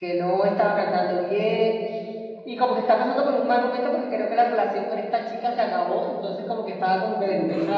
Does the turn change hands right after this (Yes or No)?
No